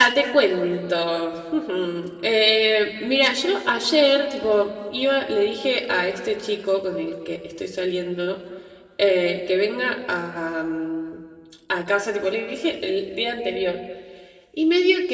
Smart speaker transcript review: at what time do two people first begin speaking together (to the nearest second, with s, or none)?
none